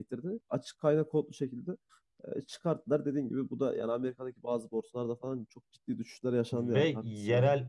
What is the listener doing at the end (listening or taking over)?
taking over